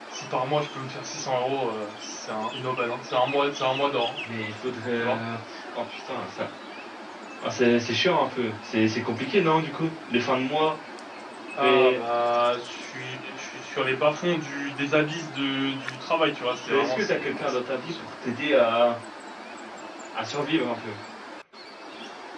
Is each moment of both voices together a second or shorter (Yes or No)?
No